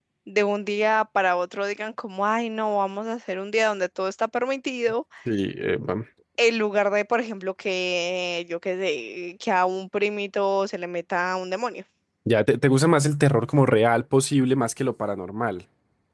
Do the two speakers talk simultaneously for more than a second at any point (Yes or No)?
No